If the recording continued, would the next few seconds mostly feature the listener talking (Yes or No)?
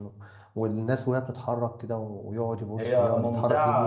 No